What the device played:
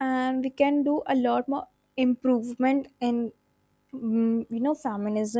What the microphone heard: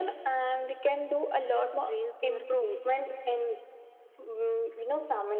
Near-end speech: present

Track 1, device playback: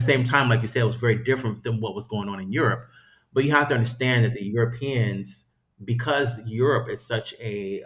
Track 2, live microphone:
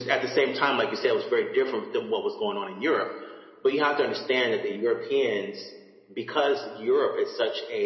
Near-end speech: none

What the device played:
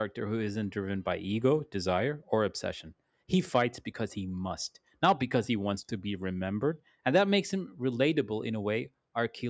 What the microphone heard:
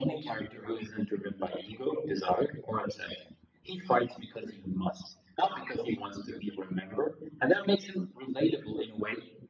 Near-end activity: none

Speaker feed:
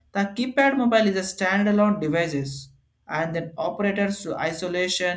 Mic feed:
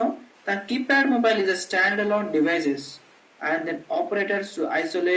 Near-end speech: none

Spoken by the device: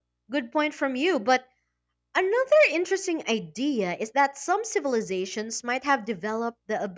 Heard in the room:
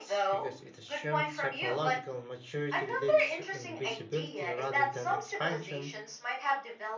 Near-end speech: present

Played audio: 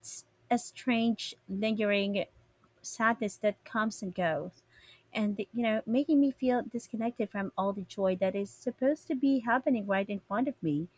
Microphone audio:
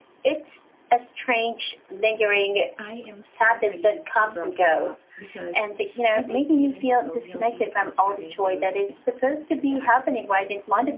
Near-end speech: present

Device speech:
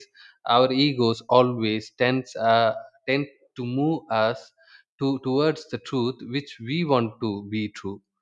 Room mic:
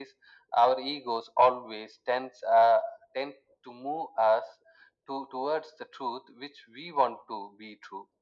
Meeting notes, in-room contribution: none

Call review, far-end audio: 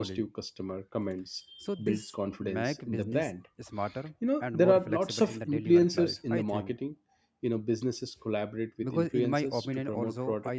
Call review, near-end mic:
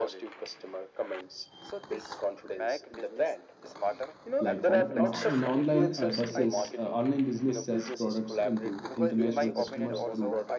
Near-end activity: present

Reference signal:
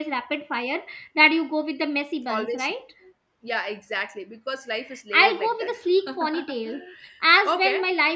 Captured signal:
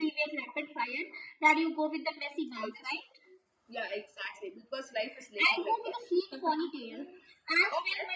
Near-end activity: none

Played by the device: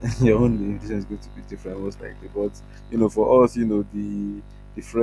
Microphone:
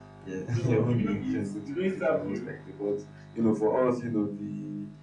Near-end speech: present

